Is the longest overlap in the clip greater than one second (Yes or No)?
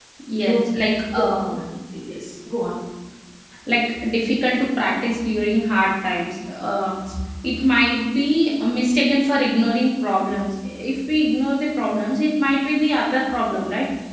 No